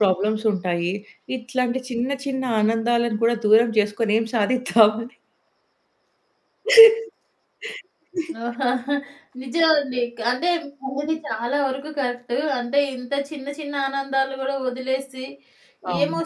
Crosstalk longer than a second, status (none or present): none